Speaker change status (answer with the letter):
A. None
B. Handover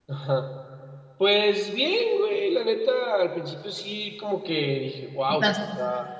A